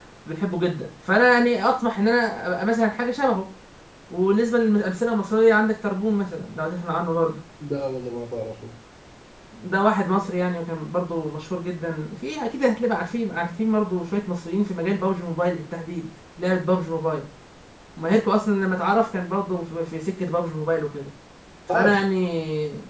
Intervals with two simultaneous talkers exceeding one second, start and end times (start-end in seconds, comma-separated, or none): none